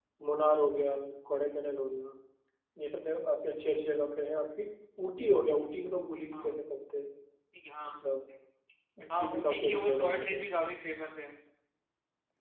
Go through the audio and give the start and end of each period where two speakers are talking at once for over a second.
9.2-10.4

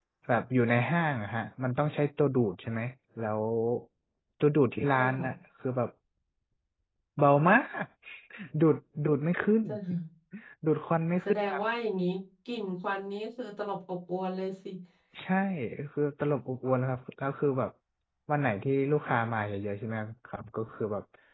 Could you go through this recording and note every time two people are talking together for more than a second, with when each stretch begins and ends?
none

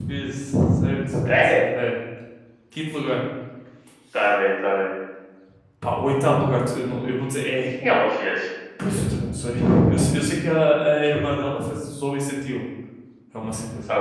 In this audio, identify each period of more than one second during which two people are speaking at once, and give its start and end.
none

